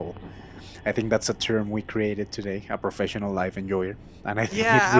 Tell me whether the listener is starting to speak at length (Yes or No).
Yes